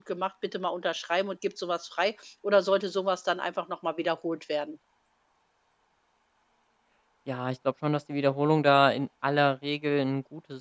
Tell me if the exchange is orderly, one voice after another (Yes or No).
Yes